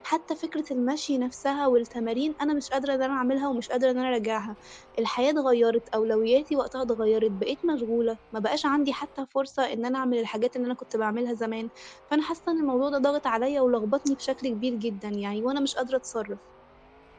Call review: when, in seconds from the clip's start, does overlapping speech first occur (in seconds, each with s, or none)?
none